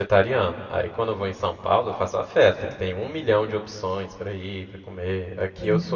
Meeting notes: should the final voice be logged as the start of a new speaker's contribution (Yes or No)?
No